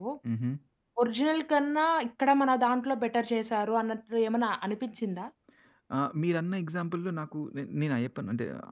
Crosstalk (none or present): none